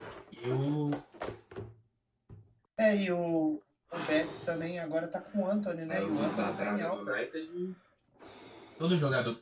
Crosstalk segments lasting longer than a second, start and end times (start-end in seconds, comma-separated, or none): 5.8-7.2